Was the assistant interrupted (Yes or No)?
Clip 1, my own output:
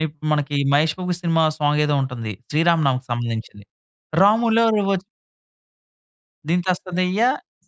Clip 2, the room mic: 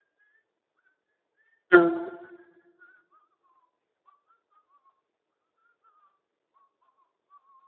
Yes